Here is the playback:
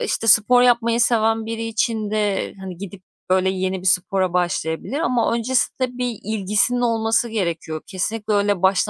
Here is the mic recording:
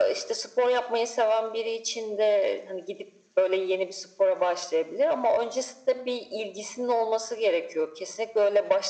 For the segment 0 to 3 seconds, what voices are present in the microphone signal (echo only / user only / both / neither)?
echo only